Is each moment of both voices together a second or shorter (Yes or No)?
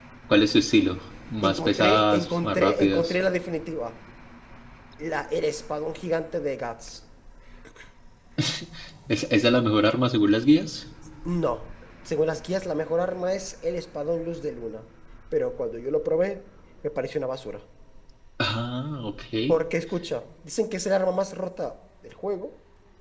No